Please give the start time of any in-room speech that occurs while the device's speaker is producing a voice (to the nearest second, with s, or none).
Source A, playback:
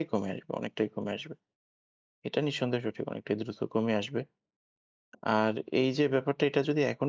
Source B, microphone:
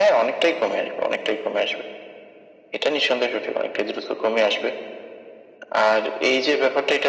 none